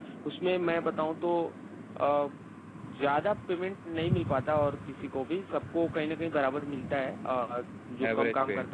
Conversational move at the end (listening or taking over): listening